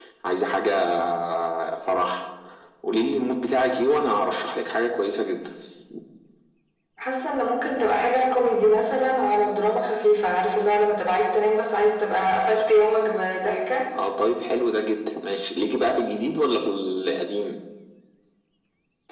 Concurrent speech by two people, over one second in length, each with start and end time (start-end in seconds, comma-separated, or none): none